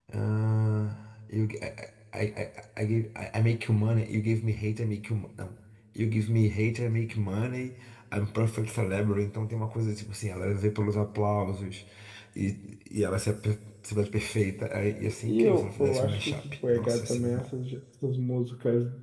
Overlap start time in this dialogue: 15.0 s

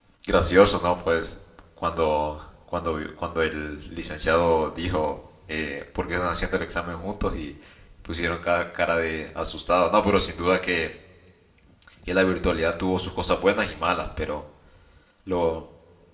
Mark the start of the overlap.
none

